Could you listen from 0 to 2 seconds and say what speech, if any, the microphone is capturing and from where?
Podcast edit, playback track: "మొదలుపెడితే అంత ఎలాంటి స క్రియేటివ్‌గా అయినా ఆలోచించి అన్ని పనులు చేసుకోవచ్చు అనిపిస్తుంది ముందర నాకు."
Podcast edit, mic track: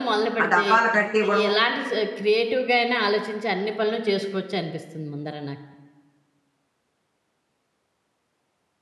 both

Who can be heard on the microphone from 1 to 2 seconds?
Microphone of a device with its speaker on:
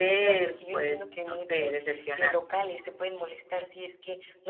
both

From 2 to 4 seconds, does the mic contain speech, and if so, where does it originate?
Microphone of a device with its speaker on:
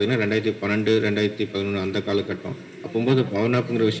both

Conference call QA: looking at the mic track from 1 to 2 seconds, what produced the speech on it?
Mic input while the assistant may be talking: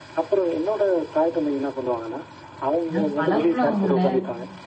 echo only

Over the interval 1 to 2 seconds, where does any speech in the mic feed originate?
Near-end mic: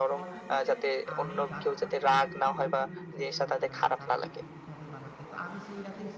both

